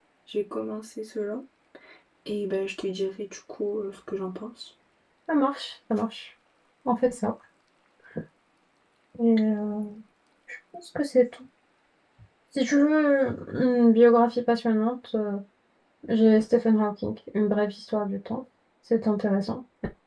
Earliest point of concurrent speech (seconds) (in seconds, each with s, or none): none